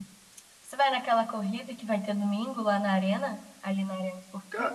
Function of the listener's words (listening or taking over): taking over